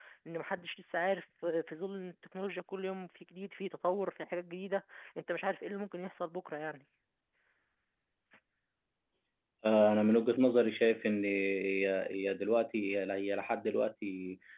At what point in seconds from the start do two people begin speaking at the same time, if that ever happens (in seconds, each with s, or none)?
none